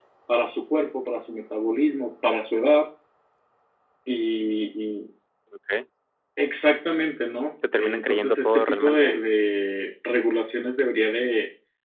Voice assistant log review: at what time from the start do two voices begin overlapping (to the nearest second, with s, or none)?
8 s